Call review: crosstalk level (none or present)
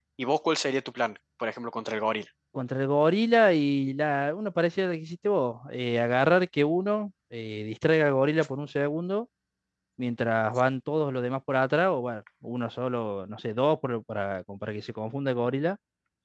none